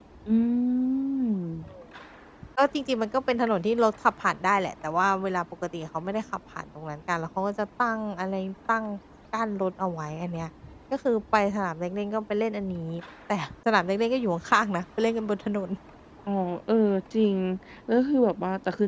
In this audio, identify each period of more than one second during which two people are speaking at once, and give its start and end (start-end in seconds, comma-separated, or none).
none